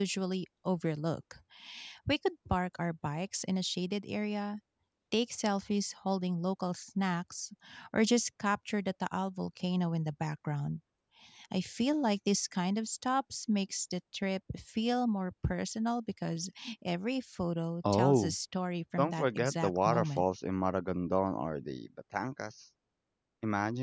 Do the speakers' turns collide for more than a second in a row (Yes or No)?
Yes